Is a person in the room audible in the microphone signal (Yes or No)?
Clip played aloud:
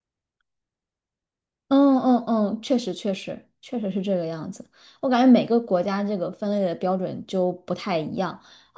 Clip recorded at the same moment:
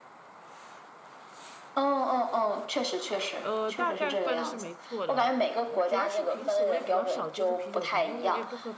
Yes